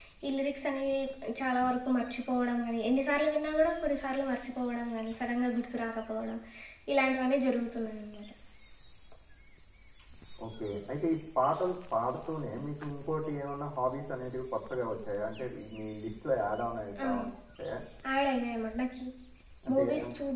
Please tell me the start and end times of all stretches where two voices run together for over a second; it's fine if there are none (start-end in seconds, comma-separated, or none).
none